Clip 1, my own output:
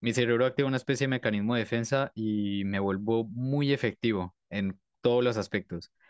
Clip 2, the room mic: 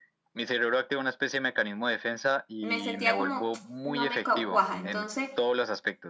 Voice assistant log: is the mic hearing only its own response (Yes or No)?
No